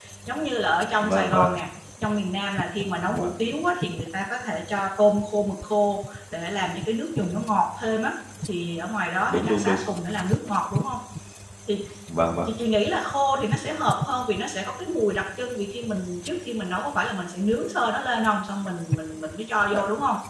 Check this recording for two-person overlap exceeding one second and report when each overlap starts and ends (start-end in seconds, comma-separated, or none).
none